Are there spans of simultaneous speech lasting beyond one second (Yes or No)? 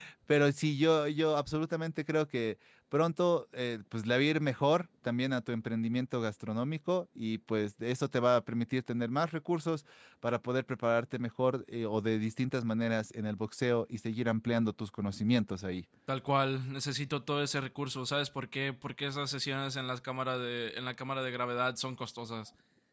No